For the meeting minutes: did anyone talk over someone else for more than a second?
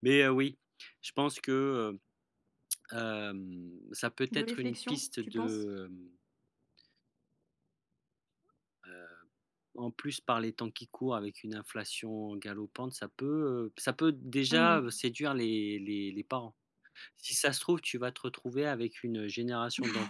Yes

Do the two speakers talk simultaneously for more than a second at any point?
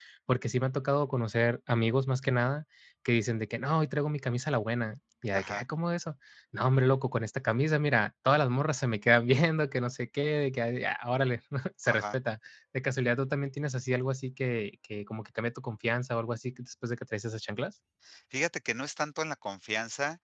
No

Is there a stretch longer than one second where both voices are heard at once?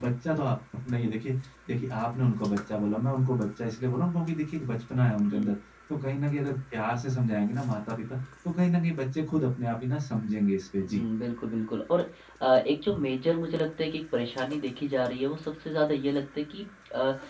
No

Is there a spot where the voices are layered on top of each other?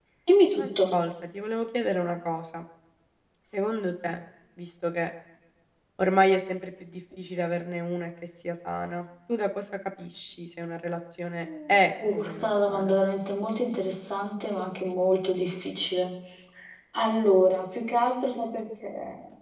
Yes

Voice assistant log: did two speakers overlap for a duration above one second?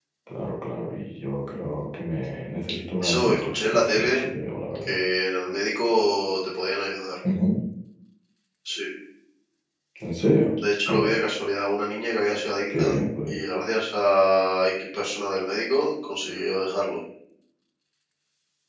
Yes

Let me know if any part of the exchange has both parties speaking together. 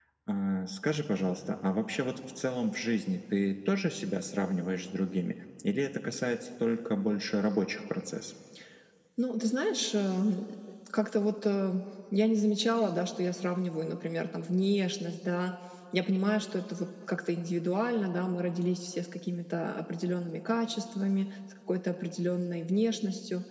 No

